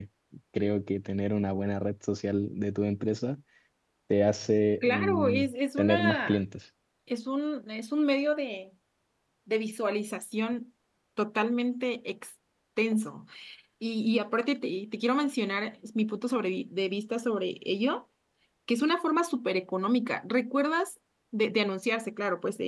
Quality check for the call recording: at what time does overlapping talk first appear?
4.8 s

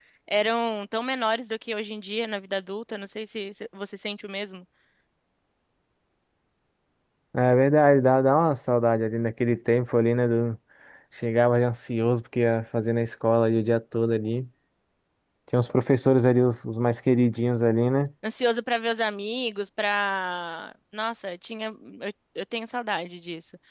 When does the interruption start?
none

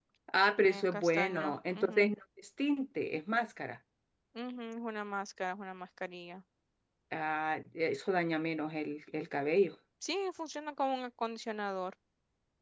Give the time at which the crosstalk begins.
0.6 s

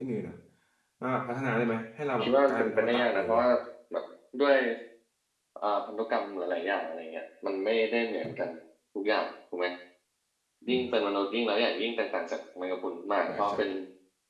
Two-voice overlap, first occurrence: 2.2 s

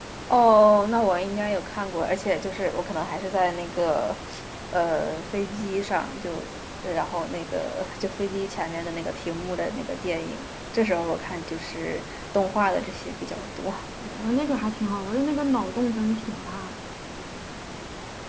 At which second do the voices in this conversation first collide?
none

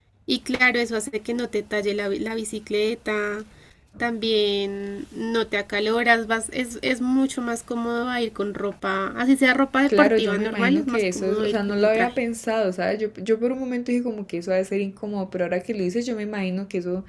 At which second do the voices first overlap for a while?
9.9 s

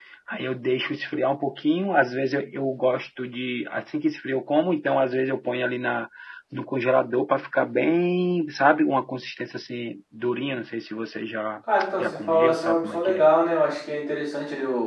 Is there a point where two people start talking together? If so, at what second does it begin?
12.0 s

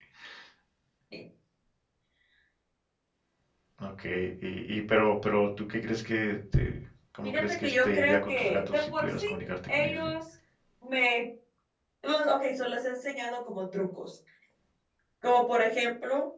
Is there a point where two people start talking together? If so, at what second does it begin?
7.2 s

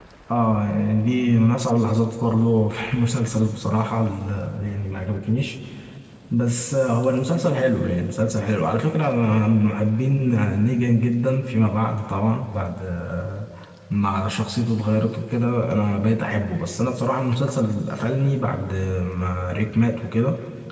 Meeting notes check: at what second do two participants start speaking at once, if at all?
none

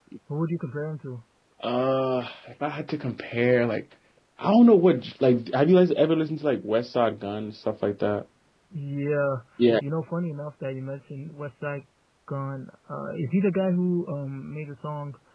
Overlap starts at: none

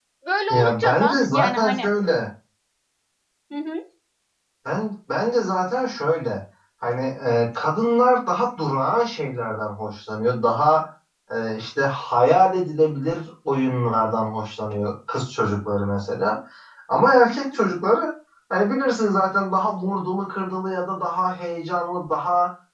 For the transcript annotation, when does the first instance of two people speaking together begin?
0.5 s

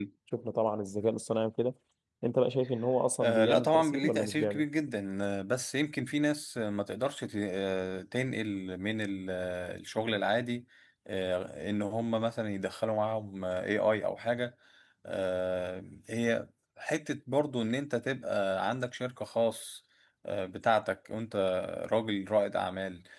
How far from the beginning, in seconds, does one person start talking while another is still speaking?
3.2 s

